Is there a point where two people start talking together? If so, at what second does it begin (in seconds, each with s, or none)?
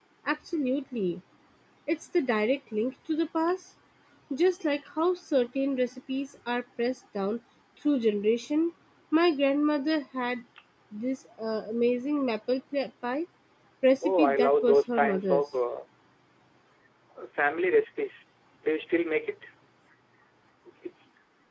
14.0 s